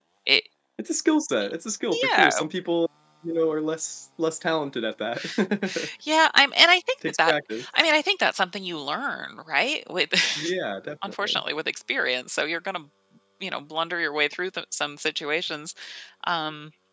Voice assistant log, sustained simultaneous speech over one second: none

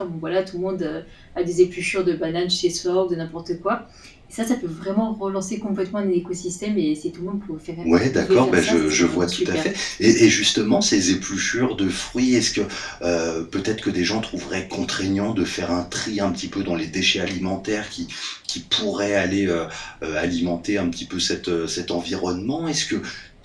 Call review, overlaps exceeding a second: present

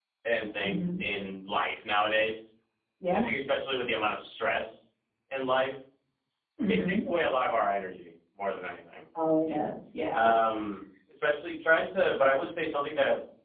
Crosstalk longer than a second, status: none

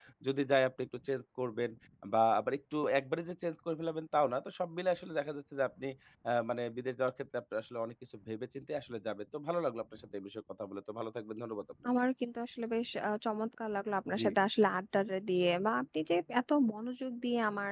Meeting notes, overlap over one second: none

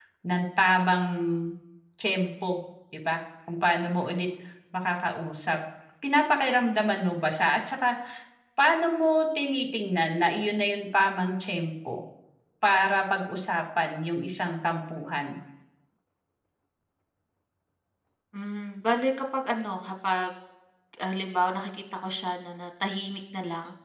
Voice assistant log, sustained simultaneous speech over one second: none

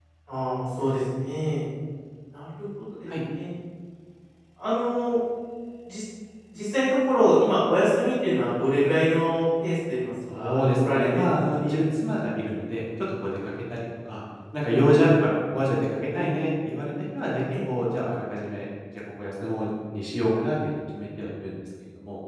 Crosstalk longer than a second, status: present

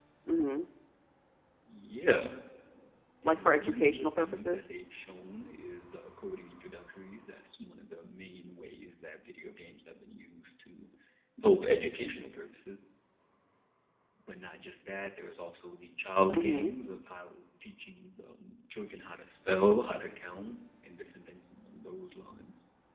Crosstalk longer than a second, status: present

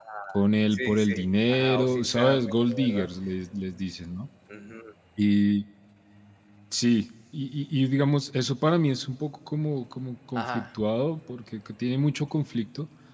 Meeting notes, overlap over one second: present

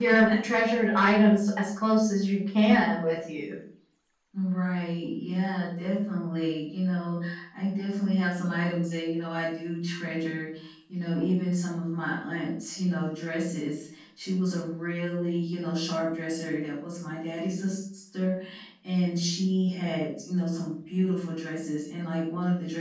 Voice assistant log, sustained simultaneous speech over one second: none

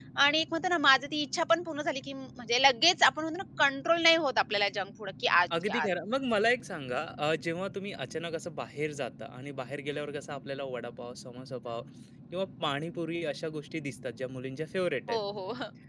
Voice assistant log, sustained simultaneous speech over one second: none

